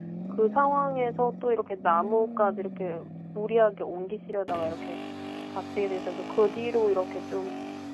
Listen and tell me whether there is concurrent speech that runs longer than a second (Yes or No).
No